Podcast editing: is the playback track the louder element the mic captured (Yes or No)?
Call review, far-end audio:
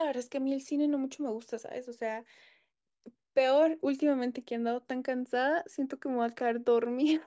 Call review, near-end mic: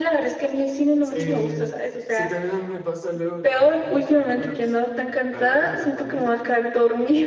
Yes